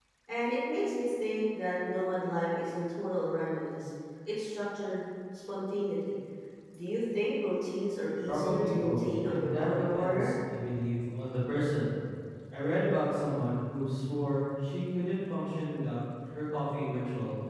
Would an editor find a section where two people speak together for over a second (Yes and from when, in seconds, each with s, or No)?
Yes, from 8.3 s